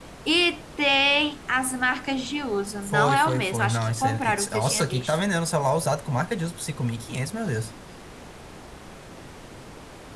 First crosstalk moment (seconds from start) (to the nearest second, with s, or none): 3 s